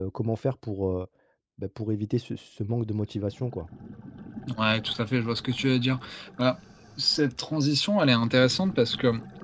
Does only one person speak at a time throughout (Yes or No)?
Yes